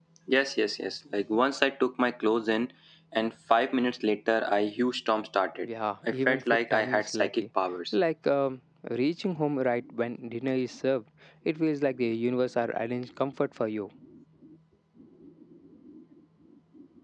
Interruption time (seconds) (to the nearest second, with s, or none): 6 s